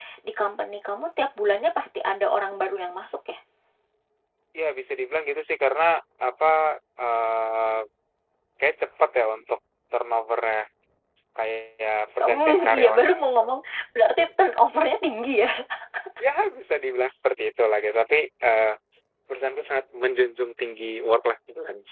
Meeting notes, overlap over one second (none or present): present